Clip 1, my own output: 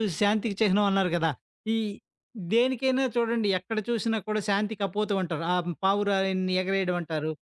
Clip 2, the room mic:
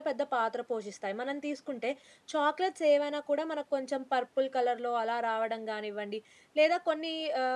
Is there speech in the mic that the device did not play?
Yes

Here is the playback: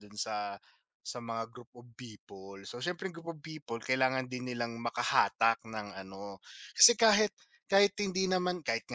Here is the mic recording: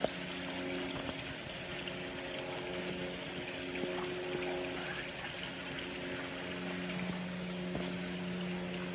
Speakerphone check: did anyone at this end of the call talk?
No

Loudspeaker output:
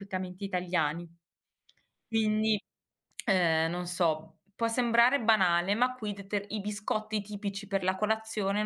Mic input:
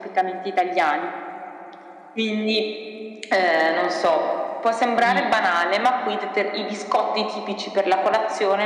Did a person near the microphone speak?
Yes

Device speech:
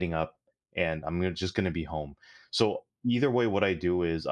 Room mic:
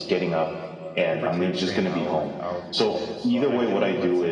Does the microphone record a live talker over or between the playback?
Yes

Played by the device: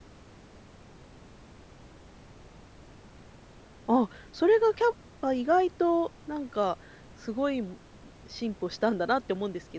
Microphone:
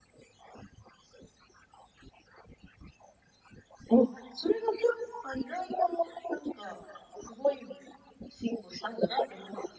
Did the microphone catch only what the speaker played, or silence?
Yes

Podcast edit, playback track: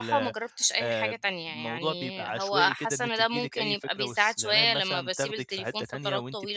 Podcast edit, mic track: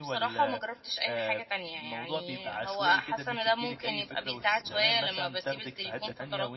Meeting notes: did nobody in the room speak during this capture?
Yes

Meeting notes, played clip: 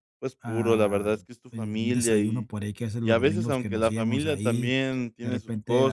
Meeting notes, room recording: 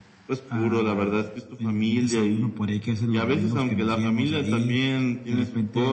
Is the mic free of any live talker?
Yes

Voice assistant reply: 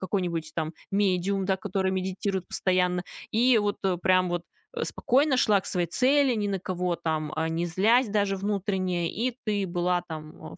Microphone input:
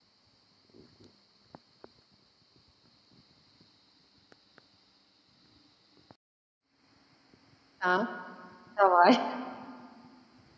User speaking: Yes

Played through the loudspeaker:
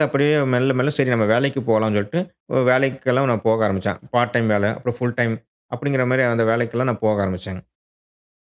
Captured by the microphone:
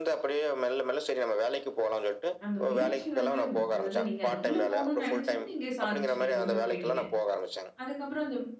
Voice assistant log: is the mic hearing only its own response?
No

